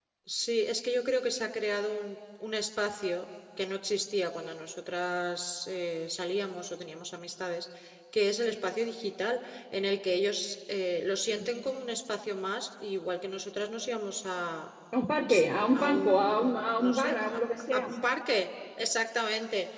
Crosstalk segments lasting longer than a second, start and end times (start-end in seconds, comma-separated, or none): 15.7-17.2